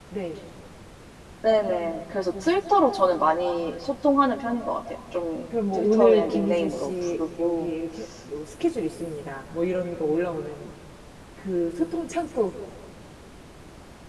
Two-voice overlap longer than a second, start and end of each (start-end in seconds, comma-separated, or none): 5.7-7.7